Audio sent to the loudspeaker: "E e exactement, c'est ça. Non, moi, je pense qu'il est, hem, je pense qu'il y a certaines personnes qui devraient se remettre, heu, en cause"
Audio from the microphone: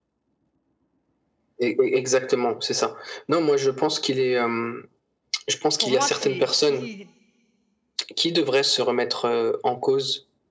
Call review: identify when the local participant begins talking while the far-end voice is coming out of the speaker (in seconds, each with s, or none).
5.8 s